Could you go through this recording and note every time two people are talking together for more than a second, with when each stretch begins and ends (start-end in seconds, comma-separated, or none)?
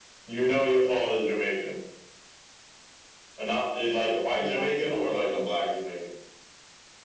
3.8-5.4